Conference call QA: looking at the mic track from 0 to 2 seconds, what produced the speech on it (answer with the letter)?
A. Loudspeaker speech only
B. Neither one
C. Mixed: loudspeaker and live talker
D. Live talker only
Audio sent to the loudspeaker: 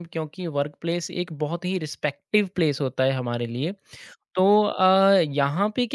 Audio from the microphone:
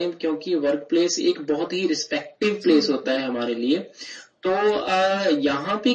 A